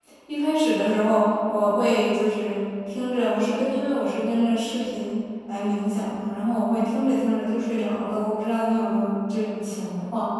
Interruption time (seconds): none

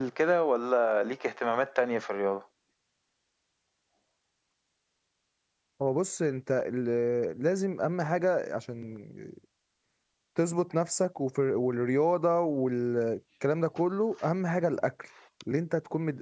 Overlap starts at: none

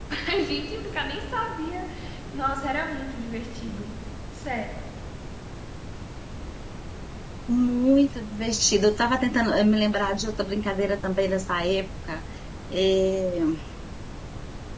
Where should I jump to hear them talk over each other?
none

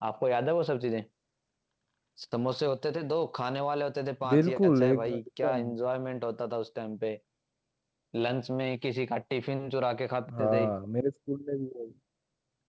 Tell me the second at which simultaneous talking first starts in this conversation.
4.3 s

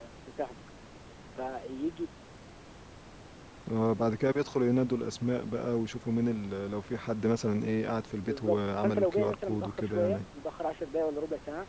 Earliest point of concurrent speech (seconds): 8.2 s

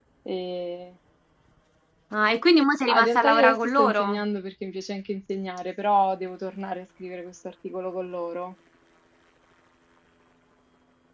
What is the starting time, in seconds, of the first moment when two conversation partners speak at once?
2.9 s

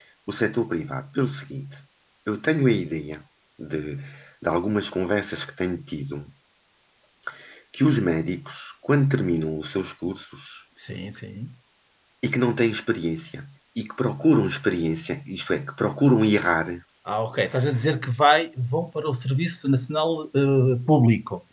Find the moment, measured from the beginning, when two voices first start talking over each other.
none

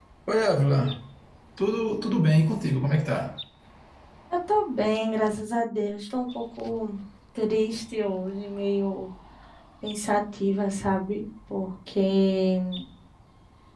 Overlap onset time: none

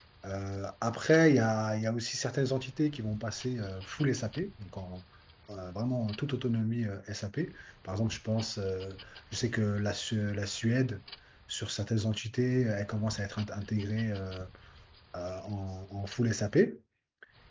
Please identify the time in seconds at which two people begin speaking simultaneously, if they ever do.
none

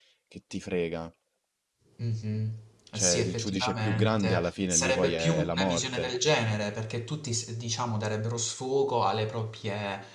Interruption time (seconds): 2.9 s

